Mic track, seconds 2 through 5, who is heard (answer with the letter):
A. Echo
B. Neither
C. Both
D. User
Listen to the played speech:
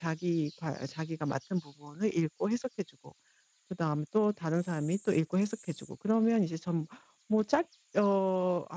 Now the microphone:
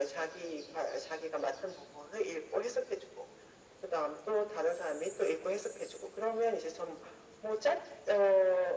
A